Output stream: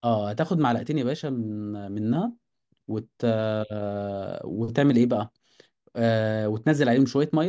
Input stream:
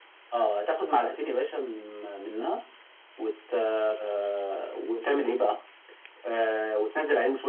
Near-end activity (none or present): none